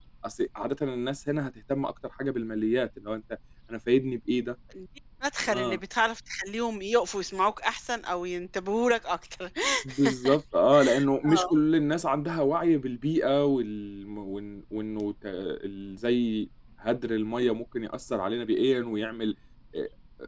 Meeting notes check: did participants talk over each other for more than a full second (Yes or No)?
No